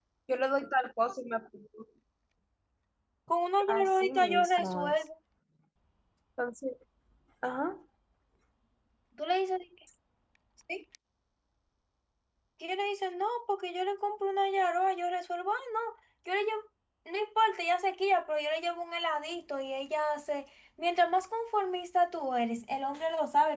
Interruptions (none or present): present